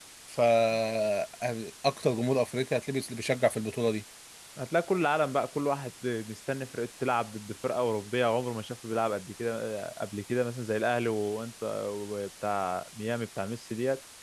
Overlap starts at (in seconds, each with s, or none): none